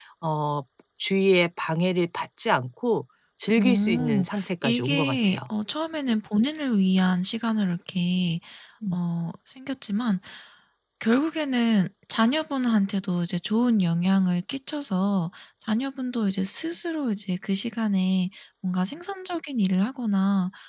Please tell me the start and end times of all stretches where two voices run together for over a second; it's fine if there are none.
3.6-5.4

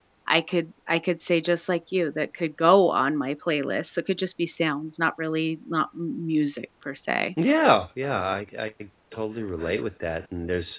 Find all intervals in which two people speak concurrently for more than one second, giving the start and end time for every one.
none

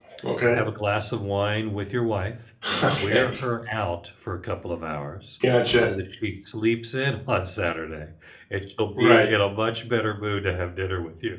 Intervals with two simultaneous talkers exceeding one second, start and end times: none

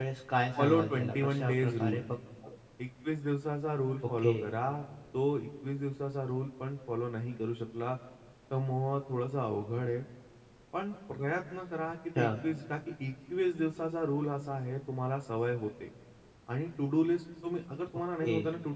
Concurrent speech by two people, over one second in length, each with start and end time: 0.6-2.0

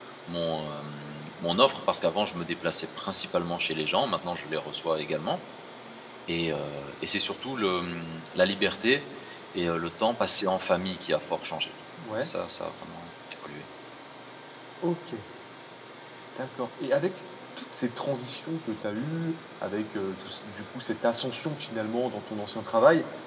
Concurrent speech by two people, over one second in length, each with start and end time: none

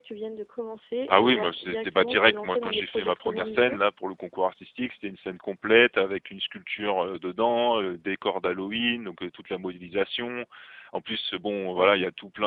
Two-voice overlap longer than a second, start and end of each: 1.1-3.8

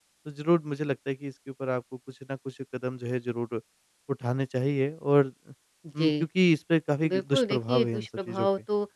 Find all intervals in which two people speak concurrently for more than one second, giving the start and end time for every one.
7.1-8.5

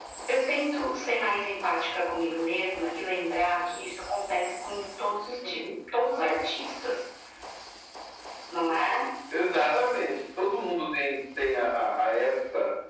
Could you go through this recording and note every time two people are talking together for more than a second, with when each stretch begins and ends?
none

